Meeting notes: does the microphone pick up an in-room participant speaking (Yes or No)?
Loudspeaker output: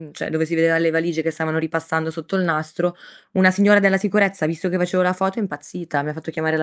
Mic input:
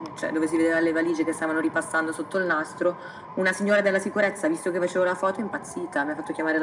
No